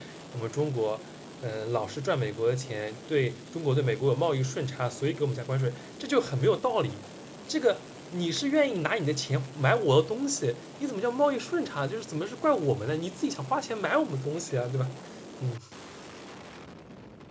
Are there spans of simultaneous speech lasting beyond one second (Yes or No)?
No